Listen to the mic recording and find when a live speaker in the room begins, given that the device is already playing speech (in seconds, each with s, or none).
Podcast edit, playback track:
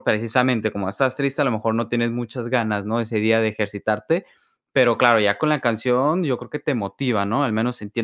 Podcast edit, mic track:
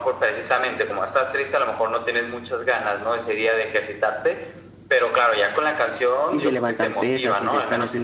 6.2 s